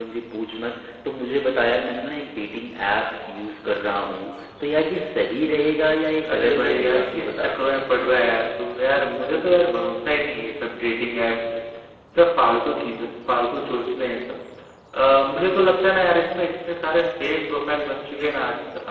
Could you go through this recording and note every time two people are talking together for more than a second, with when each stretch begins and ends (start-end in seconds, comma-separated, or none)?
6.3-7.6